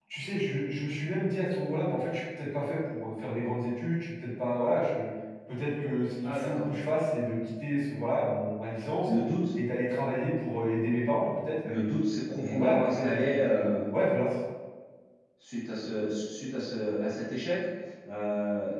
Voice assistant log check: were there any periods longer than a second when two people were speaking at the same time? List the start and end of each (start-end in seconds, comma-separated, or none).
12.4-13.9